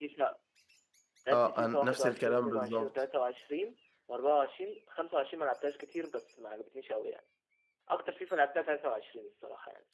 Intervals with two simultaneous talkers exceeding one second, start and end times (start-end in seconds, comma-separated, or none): 1.3-2.9